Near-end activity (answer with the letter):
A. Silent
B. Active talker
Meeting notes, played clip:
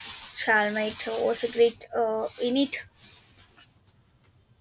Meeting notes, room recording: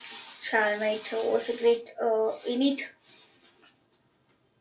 A